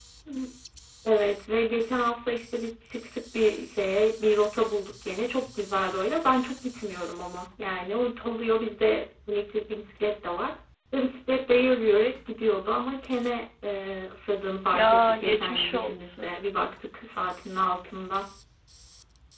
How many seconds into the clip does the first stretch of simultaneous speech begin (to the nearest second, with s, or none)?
15 s